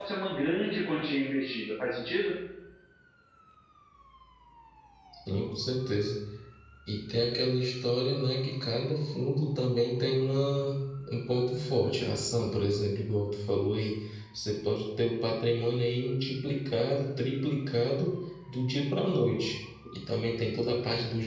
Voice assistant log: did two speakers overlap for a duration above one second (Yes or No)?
No